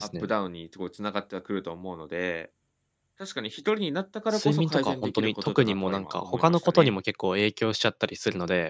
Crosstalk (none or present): present